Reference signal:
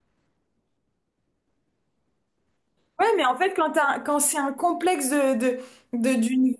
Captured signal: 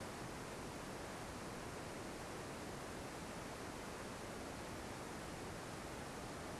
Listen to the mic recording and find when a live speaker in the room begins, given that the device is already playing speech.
none

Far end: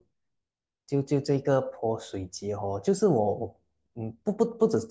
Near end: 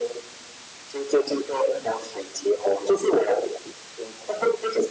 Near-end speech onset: none

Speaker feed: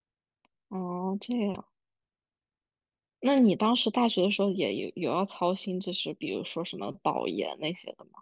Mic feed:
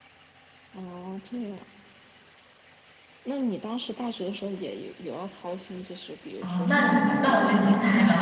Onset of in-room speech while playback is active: 6.4 s

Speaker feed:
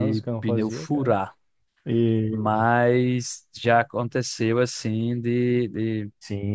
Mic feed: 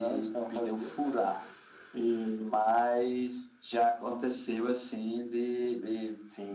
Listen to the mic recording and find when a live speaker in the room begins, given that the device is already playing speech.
none

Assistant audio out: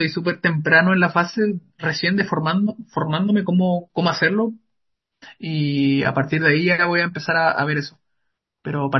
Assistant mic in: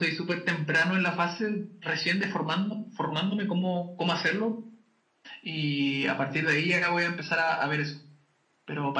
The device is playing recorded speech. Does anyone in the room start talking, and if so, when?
none

